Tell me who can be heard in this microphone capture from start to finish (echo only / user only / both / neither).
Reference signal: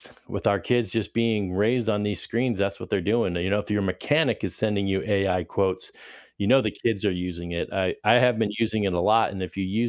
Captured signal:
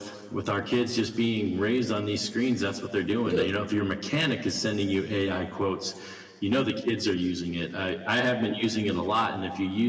both